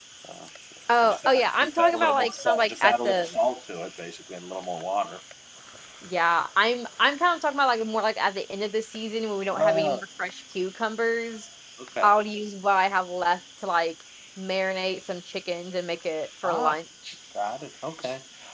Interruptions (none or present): present